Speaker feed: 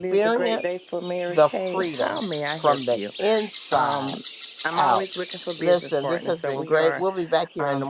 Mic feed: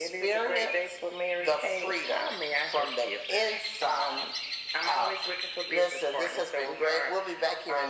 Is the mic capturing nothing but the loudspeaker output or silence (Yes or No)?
Yes